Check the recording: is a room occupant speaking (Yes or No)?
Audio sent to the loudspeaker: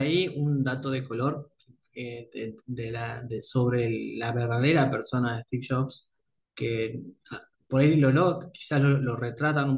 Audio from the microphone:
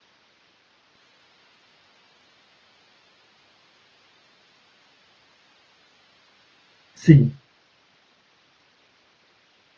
Yes